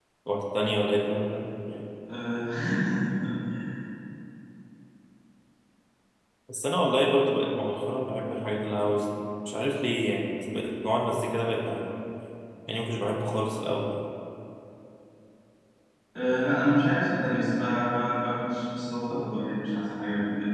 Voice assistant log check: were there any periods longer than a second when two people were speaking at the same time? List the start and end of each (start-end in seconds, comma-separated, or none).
none